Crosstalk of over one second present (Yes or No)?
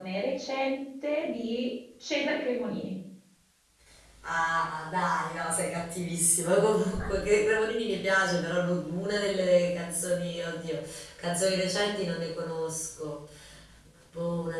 No